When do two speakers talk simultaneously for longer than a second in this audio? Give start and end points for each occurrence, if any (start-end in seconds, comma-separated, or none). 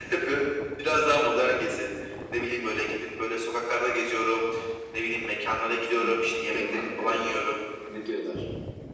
5.7-7.4